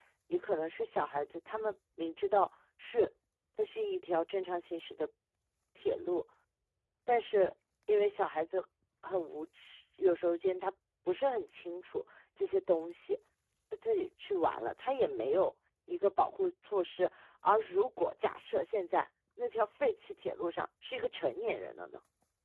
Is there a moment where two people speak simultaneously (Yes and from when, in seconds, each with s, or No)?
No